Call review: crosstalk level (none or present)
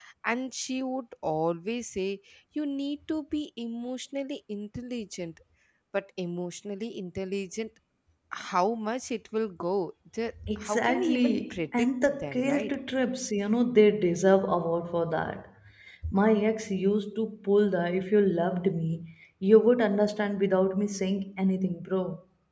present